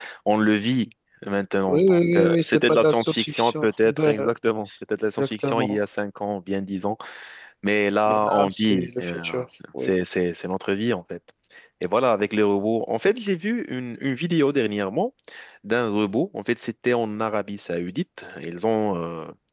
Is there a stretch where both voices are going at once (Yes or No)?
Yes